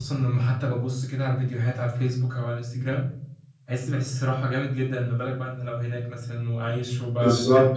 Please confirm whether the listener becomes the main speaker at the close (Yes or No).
Yes